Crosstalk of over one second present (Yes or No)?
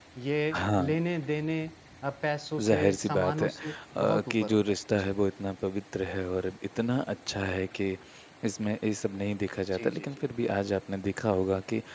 Yes